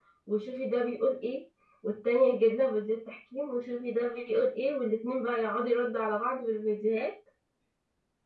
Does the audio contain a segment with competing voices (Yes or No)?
No